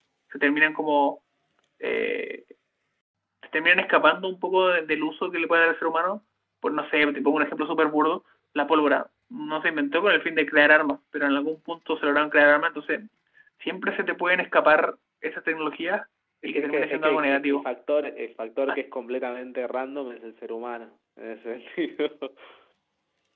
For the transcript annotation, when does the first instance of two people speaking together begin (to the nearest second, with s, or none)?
16 s